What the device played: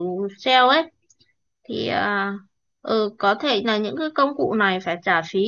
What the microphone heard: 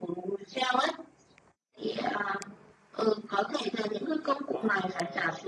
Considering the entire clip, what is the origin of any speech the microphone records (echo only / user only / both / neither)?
both